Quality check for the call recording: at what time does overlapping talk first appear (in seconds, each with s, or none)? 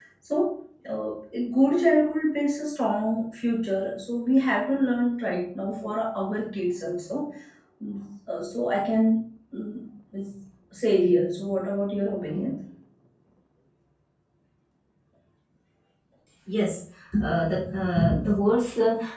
none